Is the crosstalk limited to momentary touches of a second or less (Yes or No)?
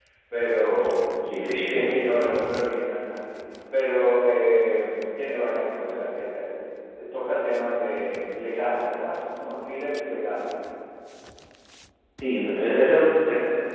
Yes